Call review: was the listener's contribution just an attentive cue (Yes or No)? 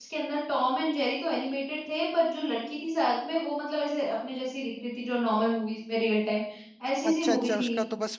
No